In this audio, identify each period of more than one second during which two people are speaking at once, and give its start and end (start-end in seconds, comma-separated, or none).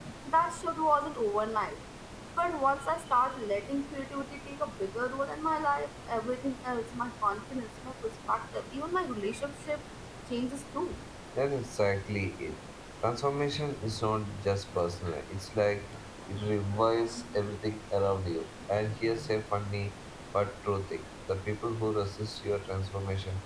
none